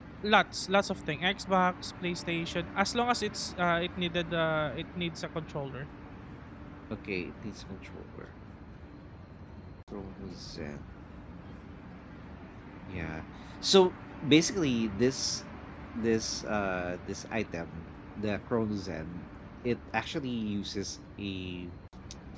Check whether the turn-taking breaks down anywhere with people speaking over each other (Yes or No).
No